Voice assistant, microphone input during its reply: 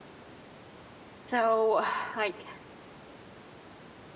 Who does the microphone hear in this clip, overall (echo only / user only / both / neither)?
user only